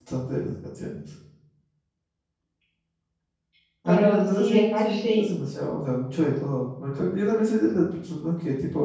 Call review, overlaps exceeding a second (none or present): present